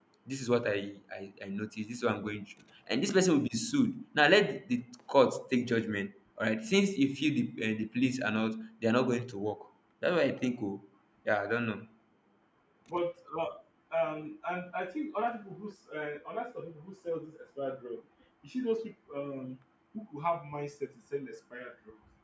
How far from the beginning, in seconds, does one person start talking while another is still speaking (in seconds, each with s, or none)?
none